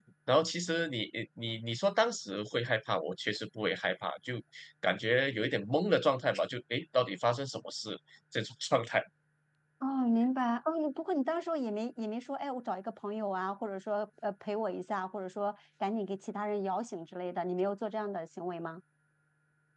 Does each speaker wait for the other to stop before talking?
Yes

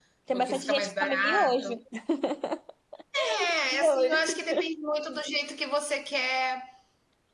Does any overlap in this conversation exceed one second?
Yes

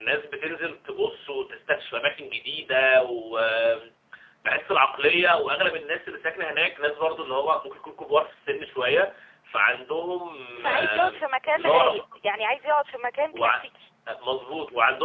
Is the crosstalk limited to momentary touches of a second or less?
No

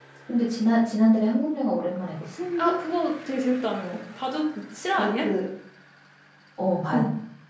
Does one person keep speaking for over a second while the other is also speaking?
No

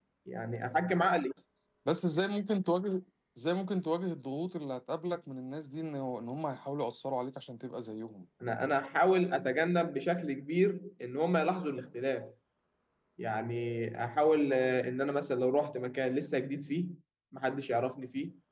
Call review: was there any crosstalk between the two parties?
No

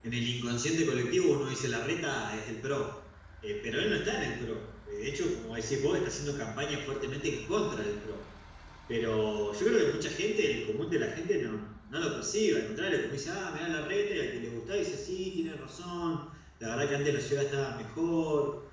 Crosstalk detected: No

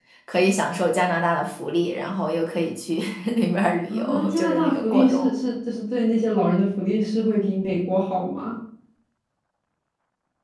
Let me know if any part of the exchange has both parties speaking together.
Yes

